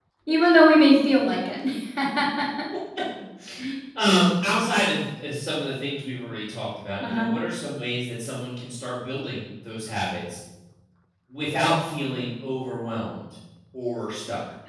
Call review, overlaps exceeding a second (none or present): none